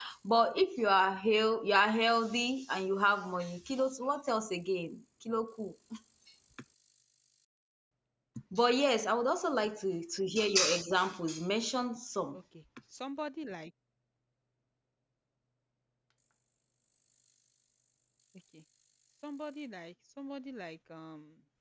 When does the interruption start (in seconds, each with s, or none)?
none